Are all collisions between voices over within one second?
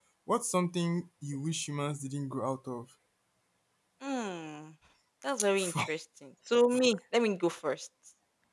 Yes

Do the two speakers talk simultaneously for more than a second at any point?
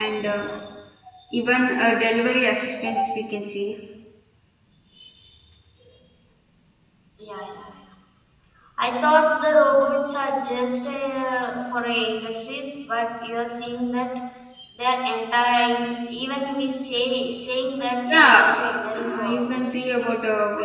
Yes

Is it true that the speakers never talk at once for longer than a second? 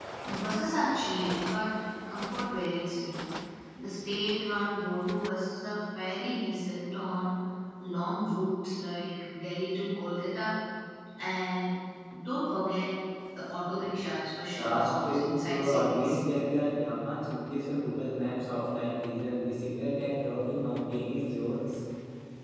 No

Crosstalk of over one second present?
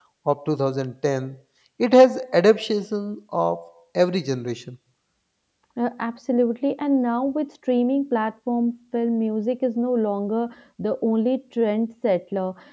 No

